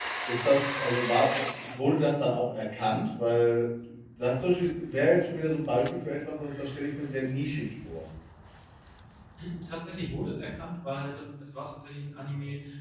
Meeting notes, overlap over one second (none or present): none